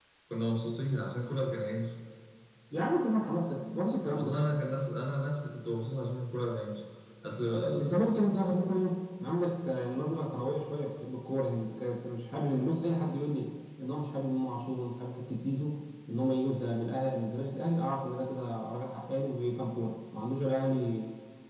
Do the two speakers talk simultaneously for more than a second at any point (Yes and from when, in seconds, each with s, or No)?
No